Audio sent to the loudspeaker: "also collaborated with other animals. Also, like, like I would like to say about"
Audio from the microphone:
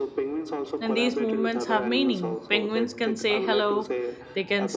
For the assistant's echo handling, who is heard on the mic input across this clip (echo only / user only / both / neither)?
both